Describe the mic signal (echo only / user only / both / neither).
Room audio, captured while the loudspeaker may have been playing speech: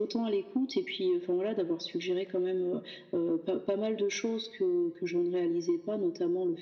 echo only